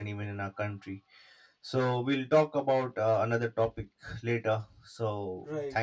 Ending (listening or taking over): taking over